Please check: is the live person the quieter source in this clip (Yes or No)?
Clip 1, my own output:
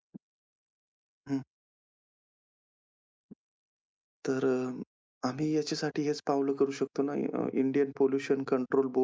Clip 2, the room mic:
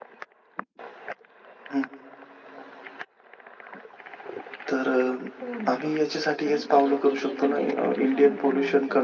Yes